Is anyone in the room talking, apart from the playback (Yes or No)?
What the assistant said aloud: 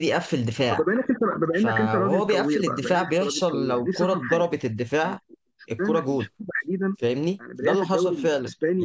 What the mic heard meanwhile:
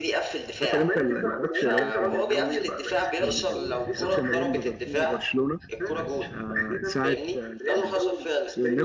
Yes